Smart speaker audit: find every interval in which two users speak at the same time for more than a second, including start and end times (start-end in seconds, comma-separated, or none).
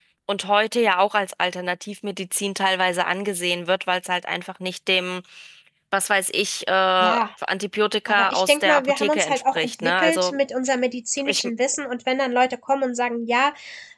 8.1-10.4